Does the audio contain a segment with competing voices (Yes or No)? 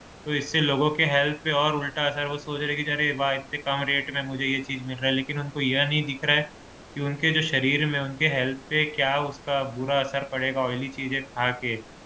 No